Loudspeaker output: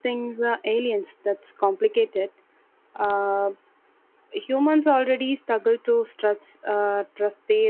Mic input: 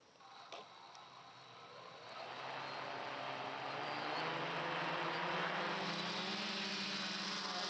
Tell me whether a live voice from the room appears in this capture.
No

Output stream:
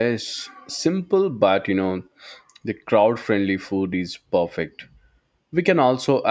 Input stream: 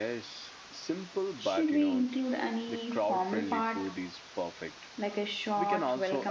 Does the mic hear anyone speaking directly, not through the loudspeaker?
Yes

